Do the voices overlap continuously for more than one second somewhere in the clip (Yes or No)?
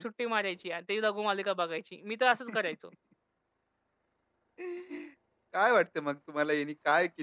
No